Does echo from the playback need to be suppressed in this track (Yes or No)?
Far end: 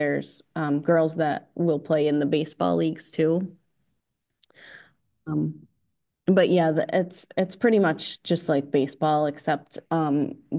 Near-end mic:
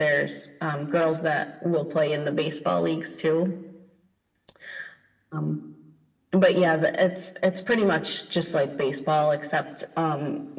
Yes